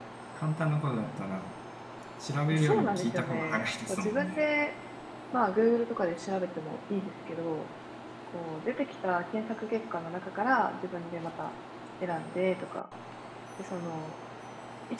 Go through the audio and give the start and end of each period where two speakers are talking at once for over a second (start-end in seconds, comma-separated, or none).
2.5-4.4